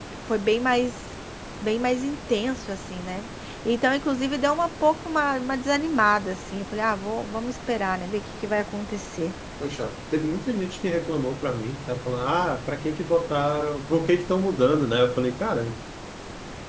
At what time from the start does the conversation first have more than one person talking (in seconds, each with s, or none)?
none